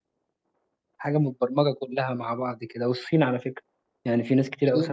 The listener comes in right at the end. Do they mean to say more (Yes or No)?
Yes